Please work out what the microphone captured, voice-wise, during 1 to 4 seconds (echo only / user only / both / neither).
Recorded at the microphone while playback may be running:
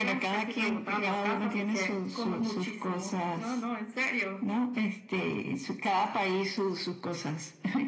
echo only